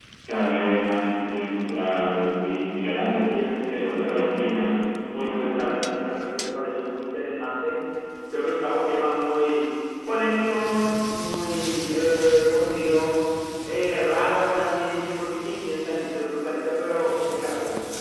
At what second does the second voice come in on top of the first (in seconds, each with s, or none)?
3.1 s